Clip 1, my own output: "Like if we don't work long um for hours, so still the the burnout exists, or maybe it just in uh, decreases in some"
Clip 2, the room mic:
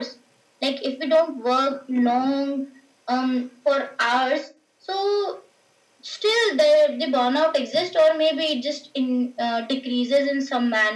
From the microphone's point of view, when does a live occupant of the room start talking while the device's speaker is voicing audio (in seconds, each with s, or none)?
none